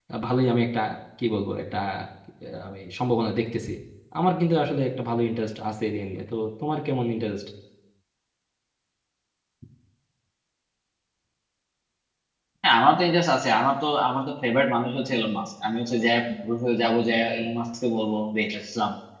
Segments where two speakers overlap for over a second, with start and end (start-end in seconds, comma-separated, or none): none